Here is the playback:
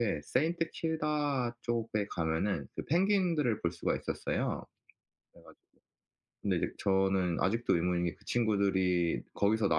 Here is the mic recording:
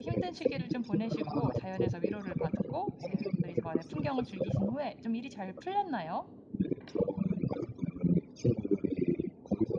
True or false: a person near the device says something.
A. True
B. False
A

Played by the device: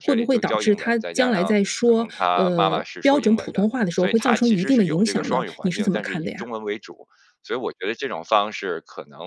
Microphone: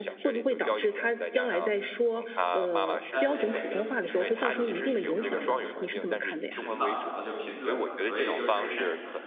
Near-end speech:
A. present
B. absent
A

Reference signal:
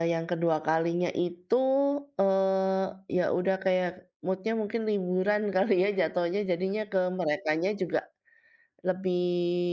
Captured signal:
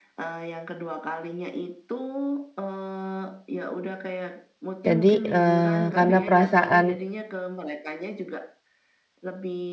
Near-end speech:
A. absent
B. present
B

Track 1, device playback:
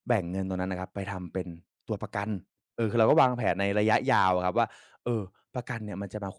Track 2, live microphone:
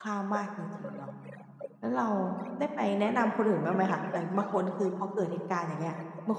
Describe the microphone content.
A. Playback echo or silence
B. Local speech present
B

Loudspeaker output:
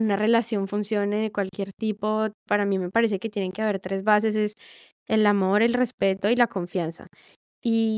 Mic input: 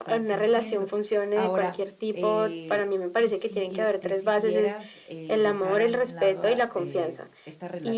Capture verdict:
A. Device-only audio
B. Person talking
B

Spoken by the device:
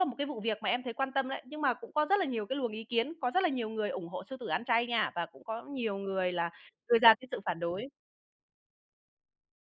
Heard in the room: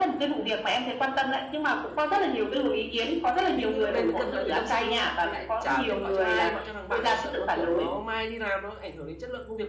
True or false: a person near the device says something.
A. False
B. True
B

